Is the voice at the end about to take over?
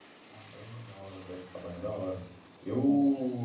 No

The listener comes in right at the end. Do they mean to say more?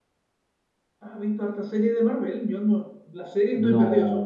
Yes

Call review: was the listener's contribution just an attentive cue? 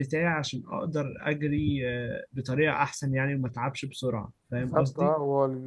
No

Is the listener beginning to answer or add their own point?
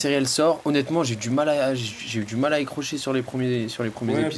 Yes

